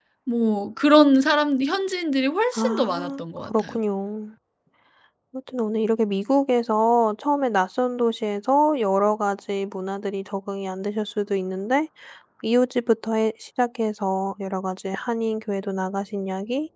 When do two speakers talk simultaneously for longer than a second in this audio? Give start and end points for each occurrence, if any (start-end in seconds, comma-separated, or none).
2.5-3.8